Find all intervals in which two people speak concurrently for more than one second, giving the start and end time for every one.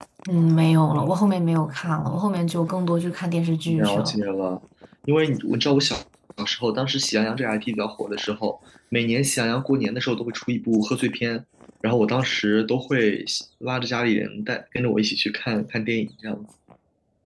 none

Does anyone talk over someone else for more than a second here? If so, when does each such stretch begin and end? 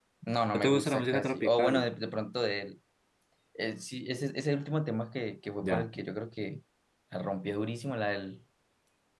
0.5-1.9

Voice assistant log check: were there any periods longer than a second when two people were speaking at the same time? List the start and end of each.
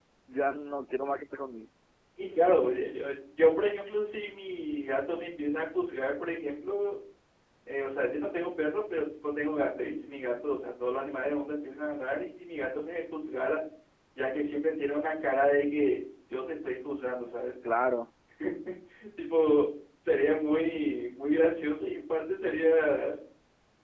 none

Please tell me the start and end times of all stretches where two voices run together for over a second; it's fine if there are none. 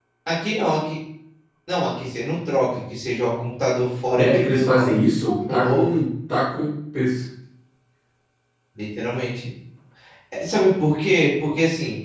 4.2-6.0

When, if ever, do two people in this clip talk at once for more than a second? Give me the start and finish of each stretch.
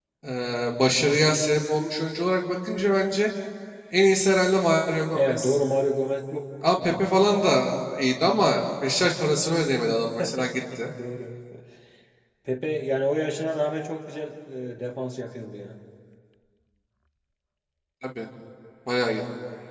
none

